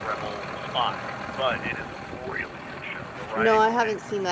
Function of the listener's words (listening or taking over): taking over